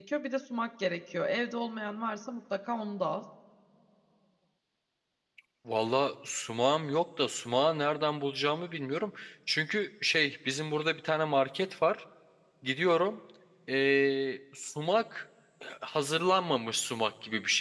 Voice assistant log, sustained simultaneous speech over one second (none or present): none